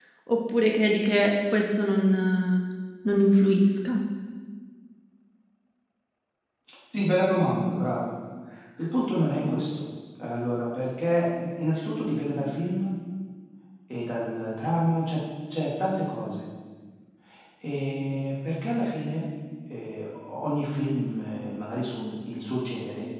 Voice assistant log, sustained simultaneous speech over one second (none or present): none